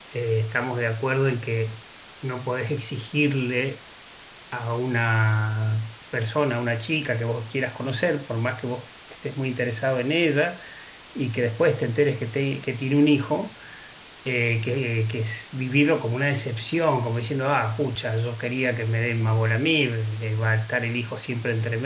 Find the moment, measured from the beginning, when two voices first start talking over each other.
none

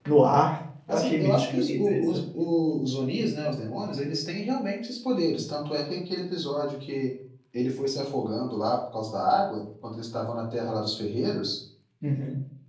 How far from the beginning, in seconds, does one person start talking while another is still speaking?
1 s

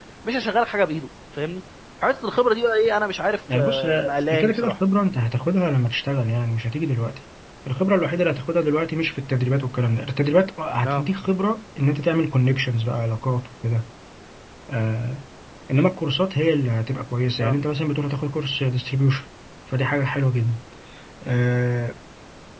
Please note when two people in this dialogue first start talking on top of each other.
3 s

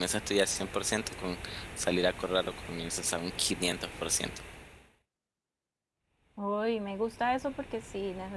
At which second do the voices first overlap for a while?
none

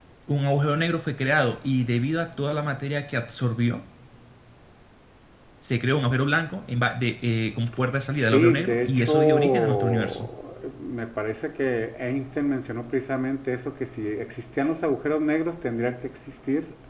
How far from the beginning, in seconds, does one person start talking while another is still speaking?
8 s

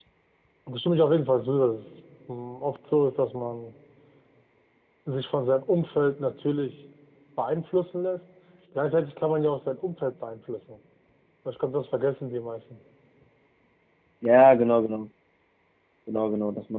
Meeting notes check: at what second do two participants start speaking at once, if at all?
none

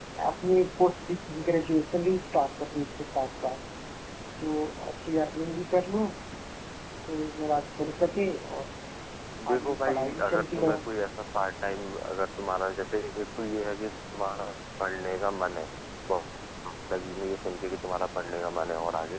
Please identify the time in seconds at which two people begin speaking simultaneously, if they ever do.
10 s

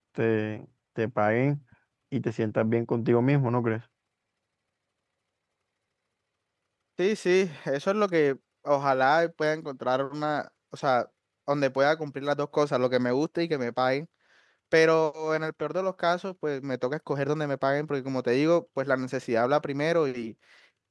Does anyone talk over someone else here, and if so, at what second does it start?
none

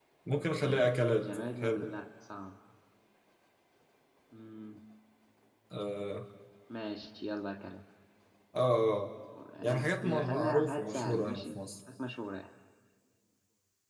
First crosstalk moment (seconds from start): 1 s

